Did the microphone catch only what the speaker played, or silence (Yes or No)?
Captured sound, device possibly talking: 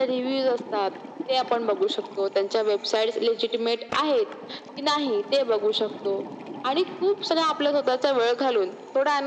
Yes